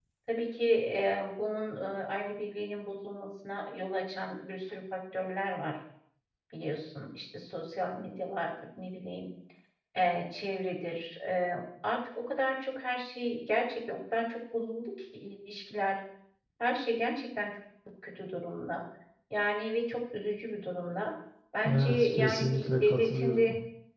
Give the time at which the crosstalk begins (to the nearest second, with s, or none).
22 s